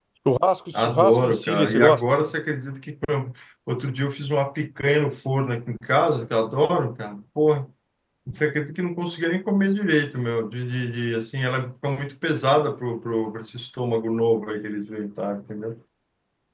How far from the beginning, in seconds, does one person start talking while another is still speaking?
1 s

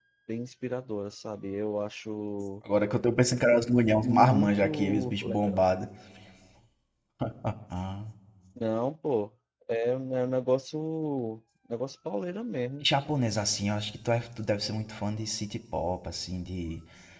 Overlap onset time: 4 s

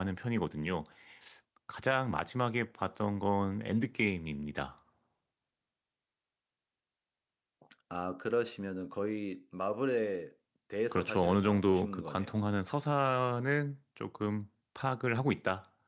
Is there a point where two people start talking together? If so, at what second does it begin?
11 s

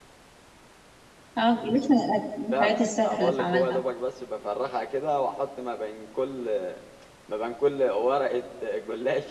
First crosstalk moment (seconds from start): 3 s

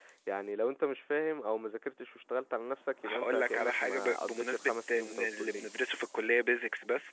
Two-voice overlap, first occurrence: 3 s

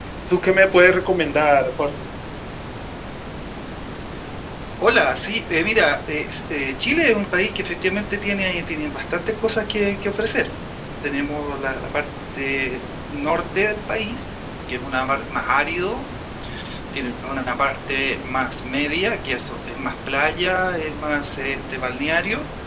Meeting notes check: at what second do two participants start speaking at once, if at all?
none

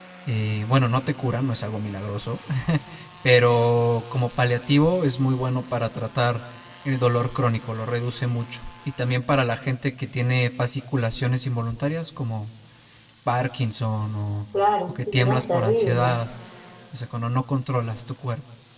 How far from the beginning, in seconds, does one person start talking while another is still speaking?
15 s

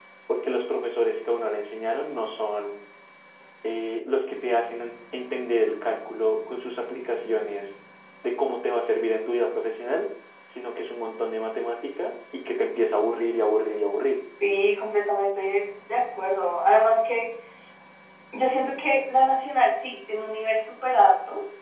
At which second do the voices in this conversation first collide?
none

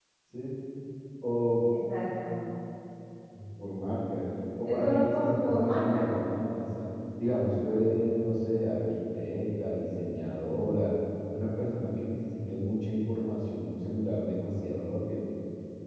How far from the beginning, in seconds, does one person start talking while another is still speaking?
5 s

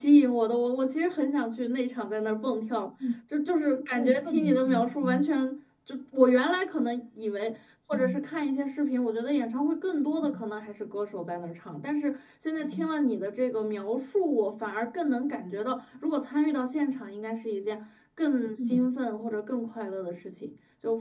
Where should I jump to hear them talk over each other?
4 s

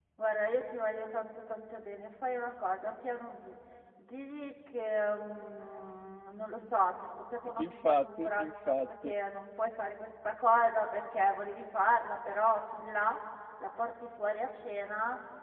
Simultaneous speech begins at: 7 s

